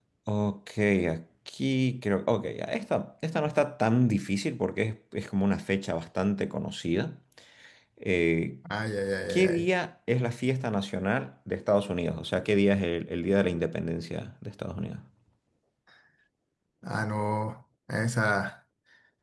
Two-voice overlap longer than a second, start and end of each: none

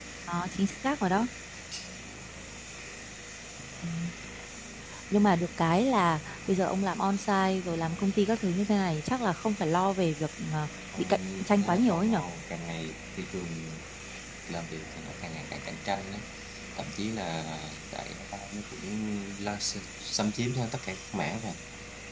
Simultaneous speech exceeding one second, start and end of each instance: 11.0-12.2

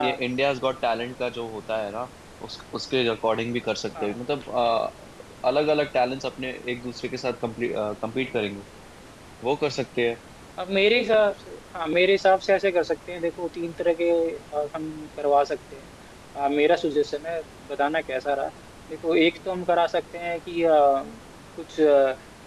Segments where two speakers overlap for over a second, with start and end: none

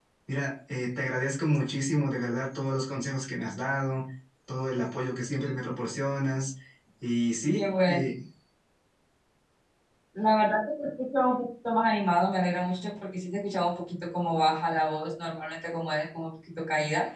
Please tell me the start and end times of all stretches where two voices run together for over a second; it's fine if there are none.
none

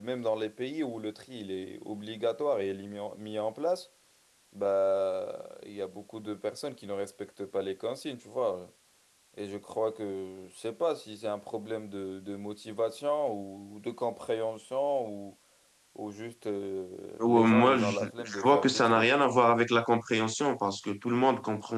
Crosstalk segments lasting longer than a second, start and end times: 17.2-19.1

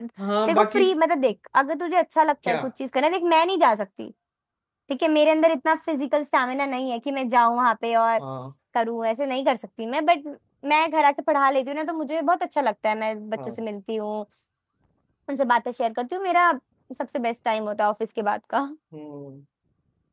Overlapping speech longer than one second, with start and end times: none

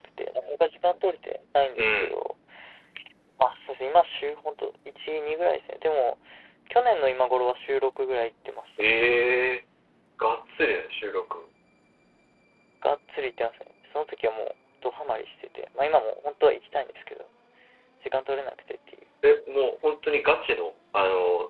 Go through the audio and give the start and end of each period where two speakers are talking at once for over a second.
none

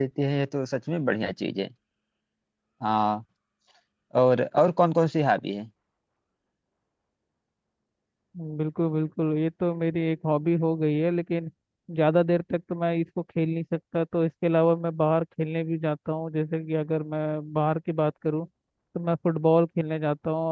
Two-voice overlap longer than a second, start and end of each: none

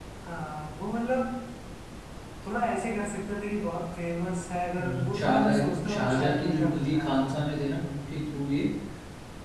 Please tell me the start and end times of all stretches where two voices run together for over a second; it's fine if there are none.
4.8-7.4

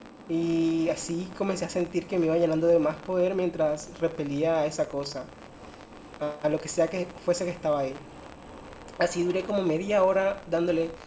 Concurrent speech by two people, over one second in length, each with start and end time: none

